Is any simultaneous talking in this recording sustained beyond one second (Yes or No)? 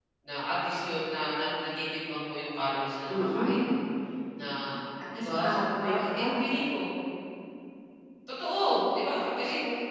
Yes